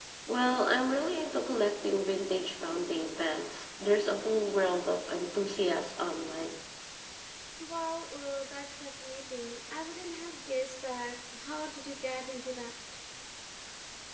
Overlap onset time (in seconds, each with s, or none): none